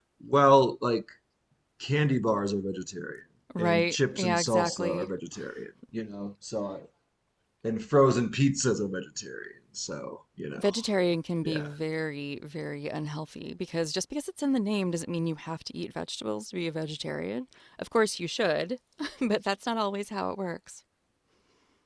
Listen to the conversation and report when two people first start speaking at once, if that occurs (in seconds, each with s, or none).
3.5 s